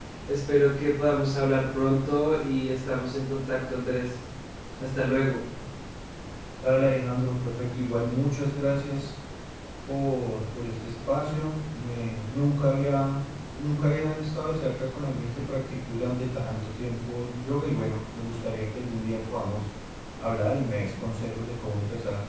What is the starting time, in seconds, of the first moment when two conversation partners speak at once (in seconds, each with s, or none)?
none